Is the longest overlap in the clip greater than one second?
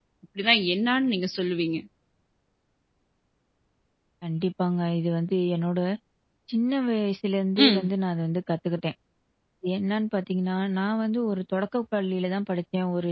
No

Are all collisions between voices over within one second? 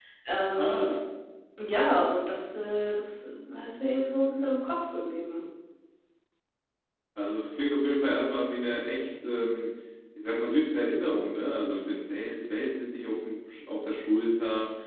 Yes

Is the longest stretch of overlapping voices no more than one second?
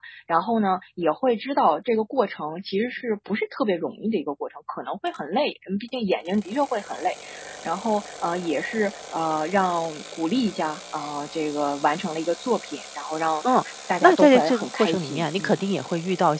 No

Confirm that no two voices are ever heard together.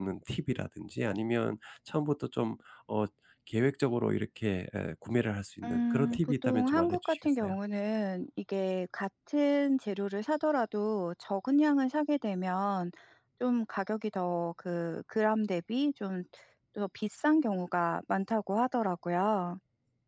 No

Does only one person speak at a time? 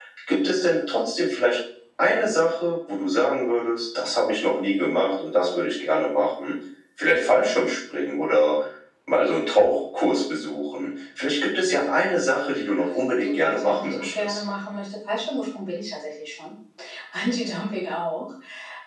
No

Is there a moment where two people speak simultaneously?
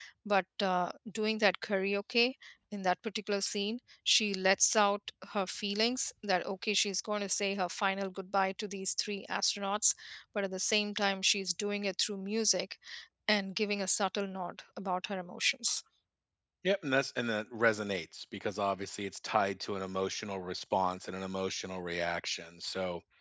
No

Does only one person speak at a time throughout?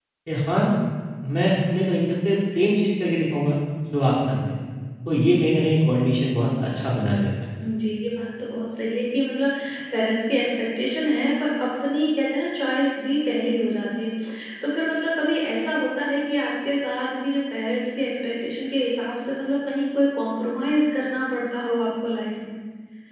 Yes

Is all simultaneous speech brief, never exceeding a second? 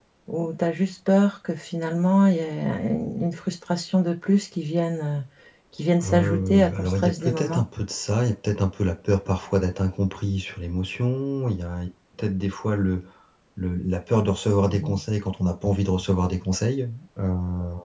No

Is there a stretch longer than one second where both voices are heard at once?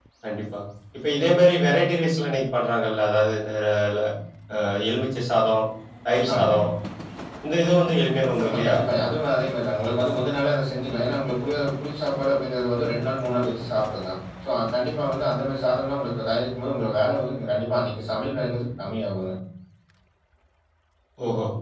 No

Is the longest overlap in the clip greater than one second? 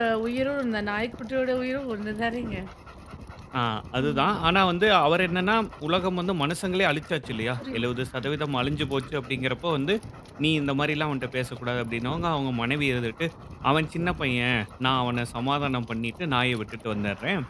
No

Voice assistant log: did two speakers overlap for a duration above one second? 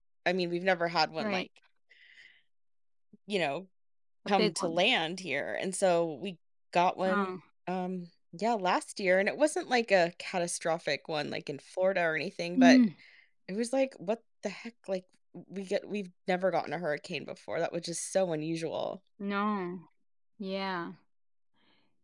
No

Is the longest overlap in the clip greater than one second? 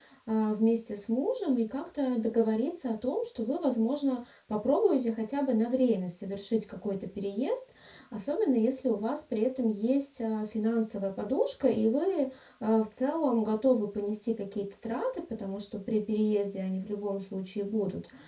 No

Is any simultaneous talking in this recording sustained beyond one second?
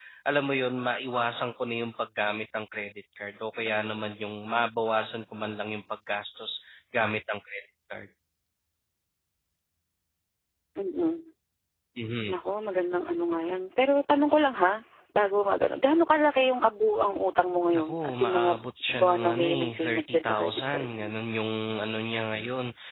Yes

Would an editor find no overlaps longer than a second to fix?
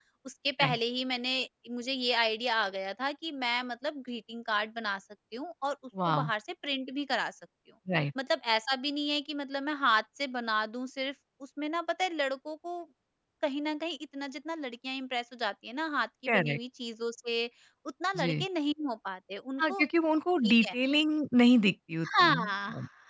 Yes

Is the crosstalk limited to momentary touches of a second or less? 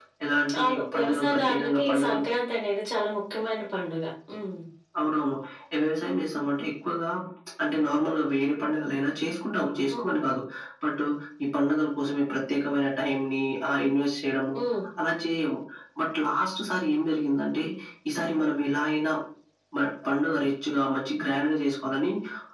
No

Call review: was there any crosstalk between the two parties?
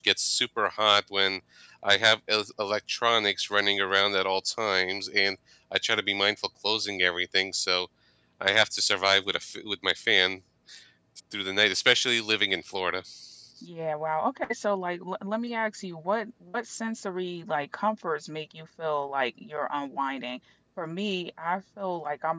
No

